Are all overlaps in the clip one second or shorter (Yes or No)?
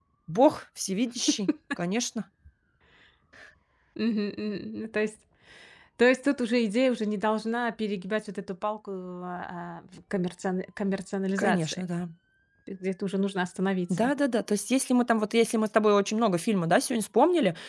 Yes